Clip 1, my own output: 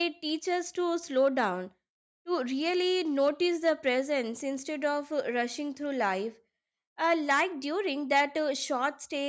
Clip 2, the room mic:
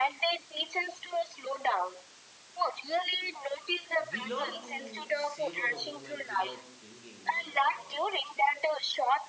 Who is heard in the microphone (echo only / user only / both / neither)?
both